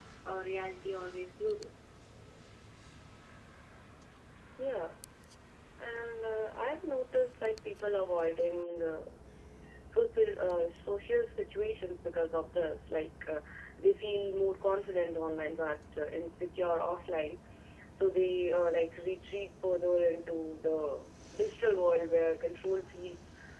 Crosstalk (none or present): none